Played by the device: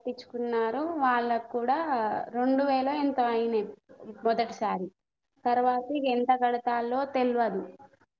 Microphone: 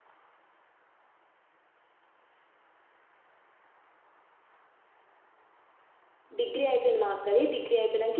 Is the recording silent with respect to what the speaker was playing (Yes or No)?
Yes